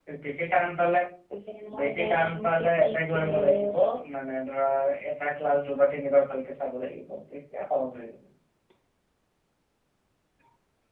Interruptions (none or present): present